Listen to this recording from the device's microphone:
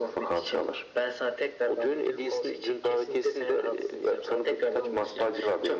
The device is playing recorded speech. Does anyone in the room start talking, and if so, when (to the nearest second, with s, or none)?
none